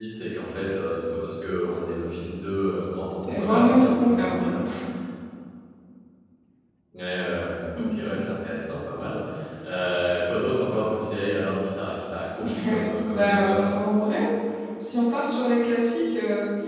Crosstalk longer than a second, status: present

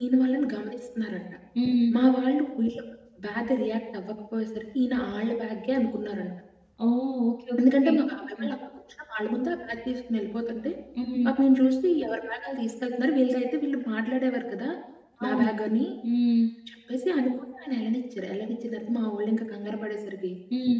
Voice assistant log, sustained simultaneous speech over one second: none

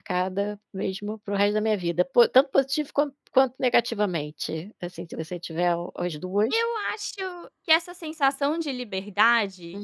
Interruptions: none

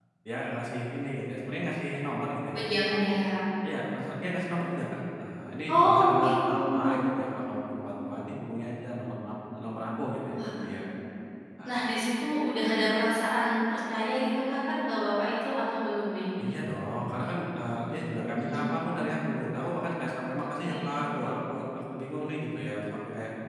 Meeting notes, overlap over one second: present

